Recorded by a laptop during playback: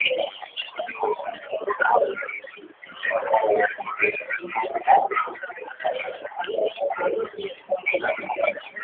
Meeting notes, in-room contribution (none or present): none